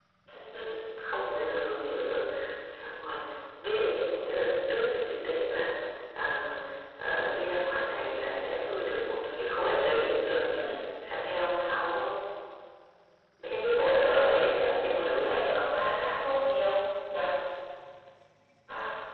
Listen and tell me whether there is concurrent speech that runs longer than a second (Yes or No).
Yes